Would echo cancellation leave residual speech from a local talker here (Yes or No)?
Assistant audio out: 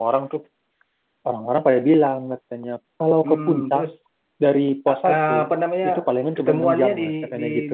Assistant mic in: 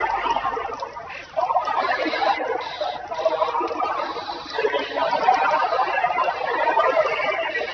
No